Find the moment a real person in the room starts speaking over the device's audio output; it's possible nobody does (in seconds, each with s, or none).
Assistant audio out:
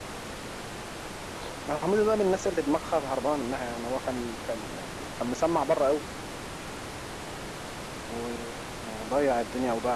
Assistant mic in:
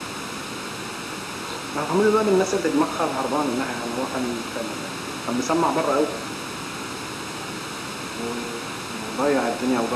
none